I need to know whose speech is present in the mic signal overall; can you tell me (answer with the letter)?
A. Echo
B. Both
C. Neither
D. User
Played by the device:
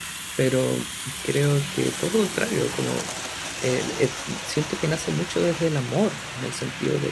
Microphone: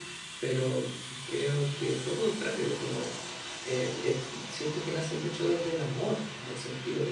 A